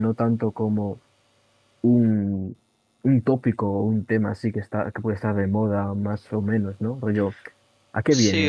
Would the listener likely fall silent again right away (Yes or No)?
No